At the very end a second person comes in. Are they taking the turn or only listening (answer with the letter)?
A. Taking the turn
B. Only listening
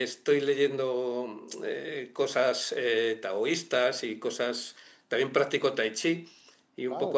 B